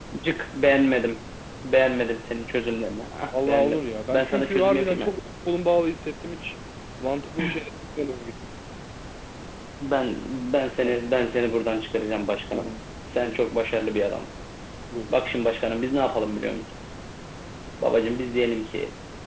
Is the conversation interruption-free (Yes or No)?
No